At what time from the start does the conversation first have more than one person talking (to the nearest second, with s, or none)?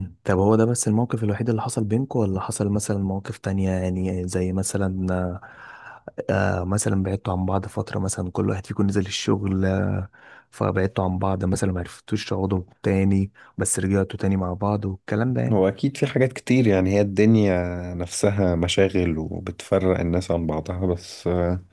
none